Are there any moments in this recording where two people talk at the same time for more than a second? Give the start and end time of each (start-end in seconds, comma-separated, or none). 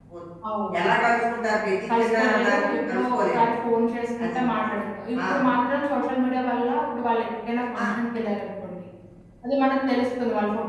2.0-3.4